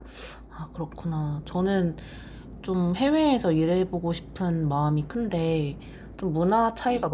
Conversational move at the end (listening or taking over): listening